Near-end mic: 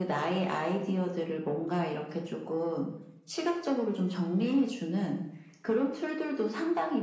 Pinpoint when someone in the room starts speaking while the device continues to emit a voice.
none

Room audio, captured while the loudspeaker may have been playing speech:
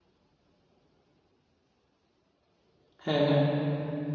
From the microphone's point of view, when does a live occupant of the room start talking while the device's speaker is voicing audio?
3 s

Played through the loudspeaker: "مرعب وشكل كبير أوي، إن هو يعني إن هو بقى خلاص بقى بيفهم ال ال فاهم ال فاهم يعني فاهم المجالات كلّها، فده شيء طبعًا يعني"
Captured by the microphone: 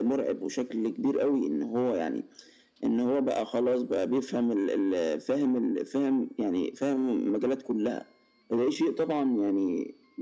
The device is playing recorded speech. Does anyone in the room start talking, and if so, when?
none

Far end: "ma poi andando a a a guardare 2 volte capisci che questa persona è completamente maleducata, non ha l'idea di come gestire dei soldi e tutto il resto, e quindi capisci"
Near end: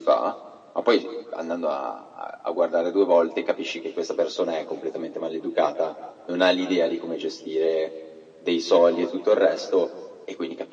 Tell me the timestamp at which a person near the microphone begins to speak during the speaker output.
none

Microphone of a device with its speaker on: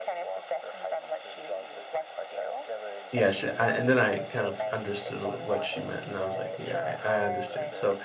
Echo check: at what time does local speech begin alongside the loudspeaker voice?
3 s

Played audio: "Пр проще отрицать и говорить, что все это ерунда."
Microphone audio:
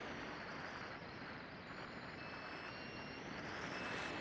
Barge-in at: none

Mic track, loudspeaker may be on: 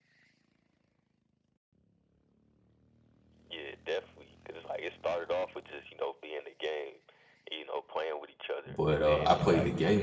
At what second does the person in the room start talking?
9 s

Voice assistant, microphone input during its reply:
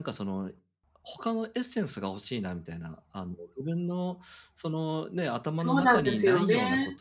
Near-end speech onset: 5 s

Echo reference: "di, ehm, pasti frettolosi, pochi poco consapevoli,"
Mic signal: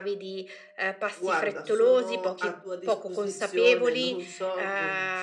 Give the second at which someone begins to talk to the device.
1 s

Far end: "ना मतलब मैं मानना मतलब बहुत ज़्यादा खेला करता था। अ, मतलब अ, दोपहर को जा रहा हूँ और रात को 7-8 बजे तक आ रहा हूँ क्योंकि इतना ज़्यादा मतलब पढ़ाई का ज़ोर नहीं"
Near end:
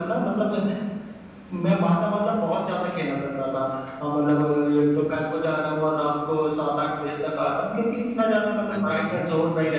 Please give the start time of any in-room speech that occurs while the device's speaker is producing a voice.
9 s

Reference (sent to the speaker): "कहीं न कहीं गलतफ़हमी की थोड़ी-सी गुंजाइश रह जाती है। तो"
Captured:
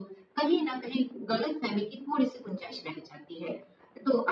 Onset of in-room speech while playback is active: none

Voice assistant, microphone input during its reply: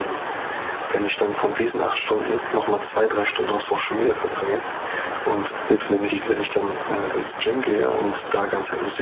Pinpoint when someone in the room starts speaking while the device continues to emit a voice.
6 s

